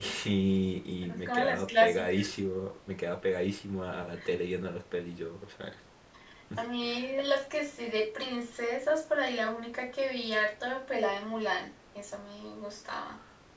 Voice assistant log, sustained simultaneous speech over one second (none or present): present